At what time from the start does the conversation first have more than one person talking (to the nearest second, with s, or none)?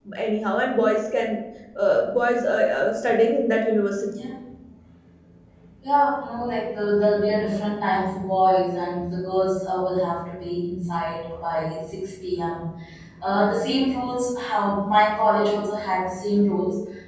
none